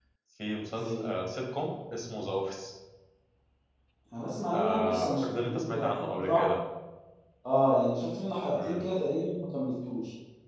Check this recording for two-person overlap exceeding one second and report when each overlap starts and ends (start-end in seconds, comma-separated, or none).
4.5-6.4